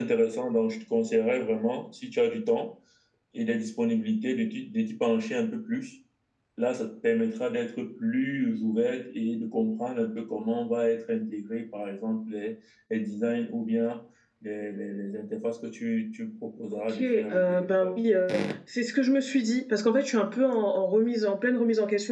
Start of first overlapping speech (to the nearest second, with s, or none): 17 s